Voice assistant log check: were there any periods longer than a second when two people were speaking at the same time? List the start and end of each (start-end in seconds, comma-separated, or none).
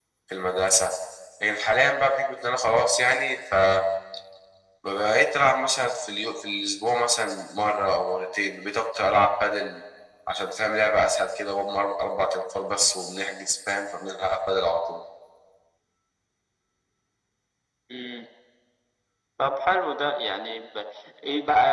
none